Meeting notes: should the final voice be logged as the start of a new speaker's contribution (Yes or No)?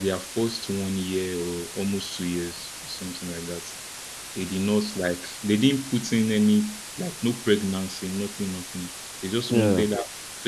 No